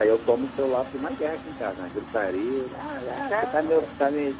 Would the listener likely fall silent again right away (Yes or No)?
Yes